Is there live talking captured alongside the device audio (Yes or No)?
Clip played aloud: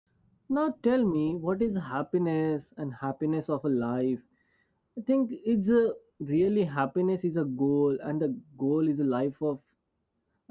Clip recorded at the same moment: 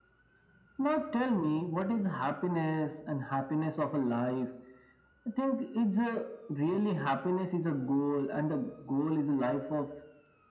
No